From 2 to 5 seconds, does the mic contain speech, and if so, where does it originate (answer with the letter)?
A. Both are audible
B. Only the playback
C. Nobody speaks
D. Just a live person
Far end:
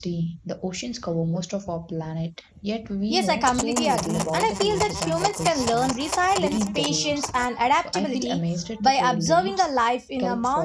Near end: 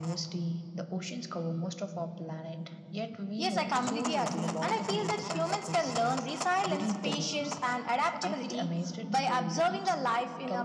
B